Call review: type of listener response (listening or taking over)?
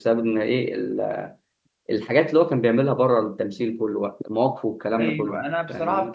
taking over